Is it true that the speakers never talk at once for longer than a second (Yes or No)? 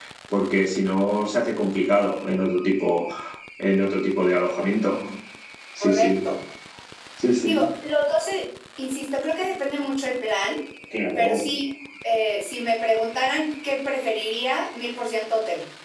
Yes